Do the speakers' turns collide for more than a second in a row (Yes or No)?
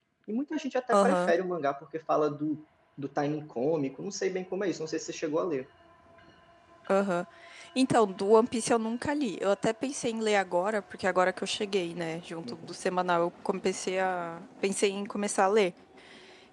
No